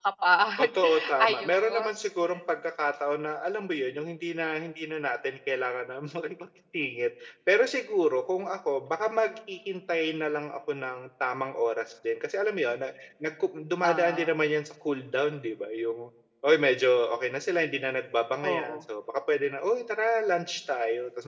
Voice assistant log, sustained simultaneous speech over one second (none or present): present